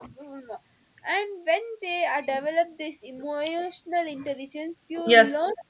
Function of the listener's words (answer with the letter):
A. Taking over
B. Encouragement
B